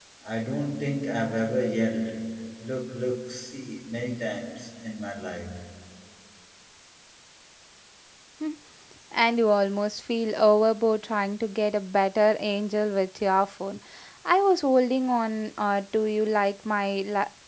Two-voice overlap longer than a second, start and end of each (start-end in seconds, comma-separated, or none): none